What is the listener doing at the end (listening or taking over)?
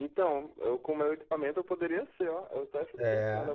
listening